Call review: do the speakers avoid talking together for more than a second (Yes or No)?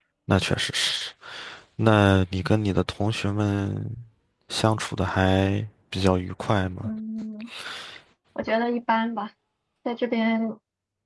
Yes